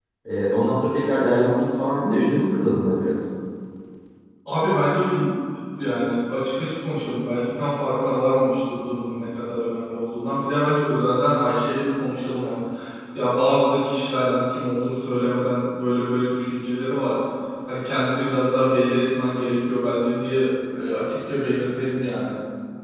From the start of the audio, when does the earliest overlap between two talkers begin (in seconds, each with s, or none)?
none